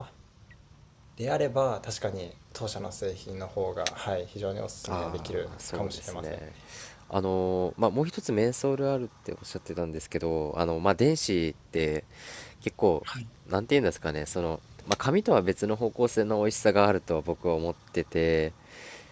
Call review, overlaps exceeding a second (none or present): present